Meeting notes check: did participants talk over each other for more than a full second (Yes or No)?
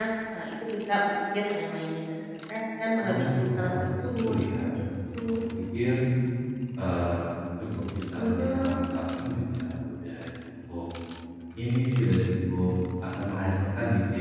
Yes